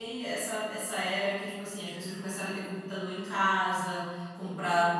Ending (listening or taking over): listening